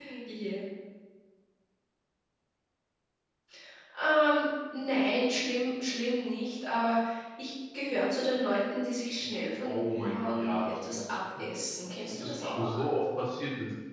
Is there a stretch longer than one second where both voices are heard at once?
Yes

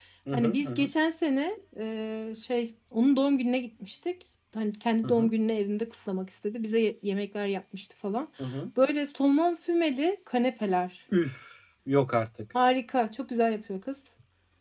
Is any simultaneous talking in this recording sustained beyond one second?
No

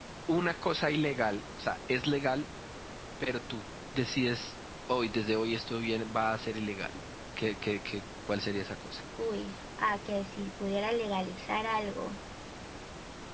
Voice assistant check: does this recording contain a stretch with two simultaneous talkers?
No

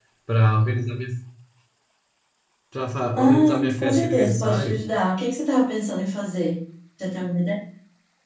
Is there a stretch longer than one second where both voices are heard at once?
Yes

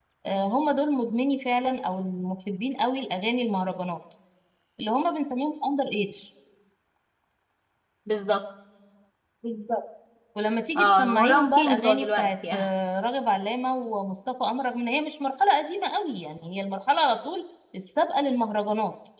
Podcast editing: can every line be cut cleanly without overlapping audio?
No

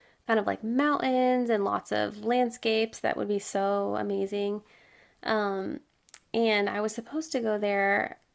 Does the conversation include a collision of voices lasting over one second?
No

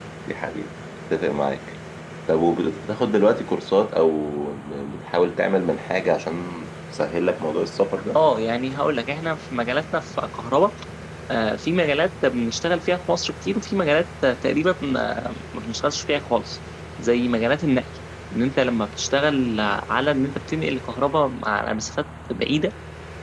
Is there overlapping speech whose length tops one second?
No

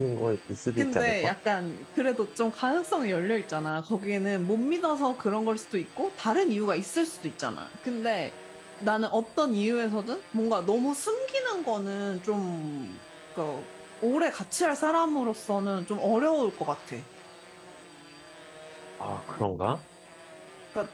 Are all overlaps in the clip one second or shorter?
Yes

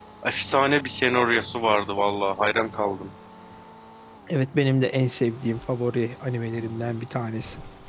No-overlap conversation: Yes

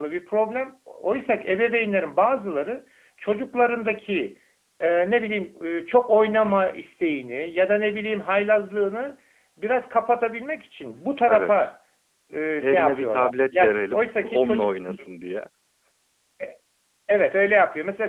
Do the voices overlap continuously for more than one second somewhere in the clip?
Yes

